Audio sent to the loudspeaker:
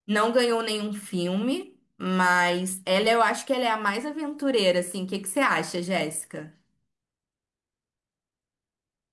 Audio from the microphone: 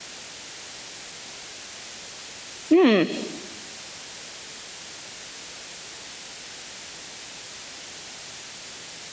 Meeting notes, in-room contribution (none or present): present